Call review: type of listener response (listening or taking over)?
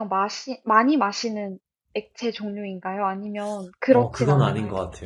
taking over